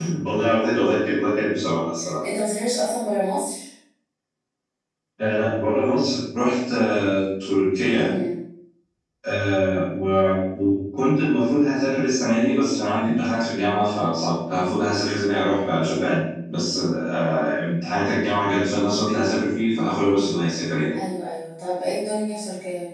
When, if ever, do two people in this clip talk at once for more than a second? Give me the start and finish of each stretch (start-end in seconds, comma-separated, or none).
none